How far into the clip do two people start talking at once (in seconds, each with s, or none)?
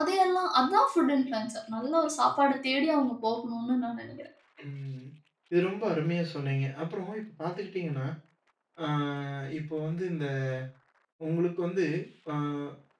none